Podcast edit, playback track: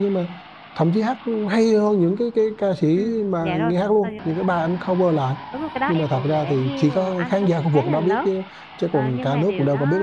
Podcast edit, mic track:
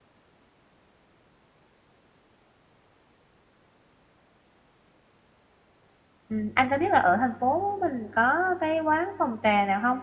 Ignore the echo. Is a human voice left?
Yes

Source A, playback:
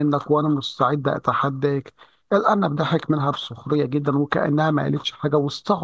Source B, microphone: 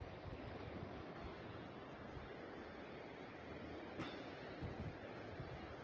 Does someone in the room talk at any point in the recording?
No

